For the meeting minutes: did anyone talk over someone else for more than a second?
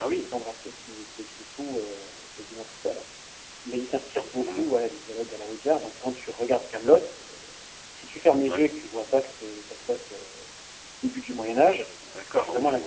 No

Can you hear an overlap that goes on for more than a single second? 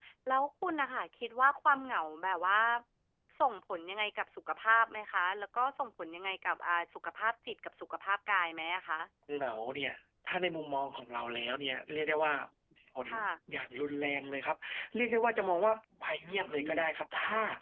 No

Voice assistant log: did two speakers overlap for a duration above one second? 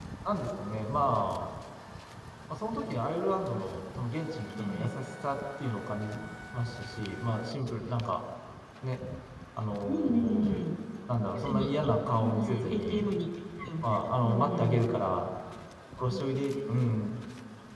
Yes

